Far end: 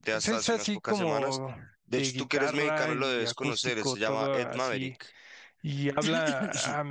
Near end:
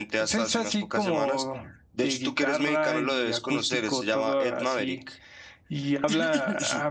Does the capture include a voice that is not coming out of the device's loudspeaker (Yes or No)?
No